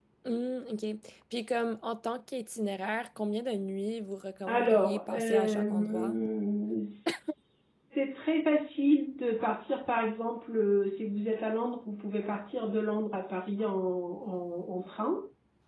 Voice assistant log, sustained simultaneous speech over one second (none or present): present